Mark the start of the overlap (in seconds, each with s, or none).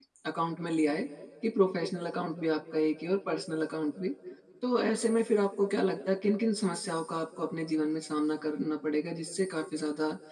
none